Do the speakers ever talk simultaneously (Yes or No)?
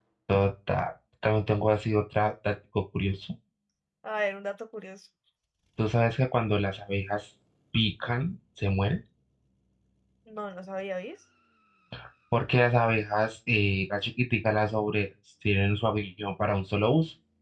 No